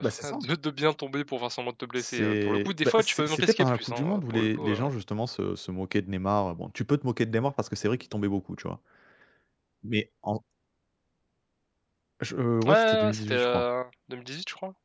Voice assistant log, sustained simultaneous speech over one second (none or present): present